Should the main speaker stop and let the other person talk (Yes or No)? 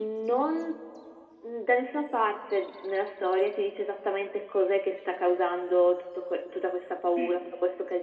No